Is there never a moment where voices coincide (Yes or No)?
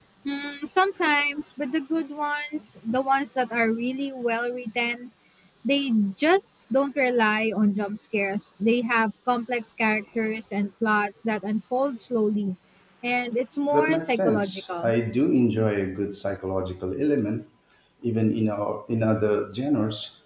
No